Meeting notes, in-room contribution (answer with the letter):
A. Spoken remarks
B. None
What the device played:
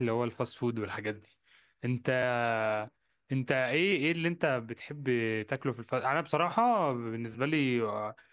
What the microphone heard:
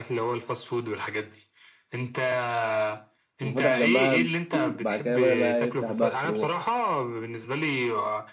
A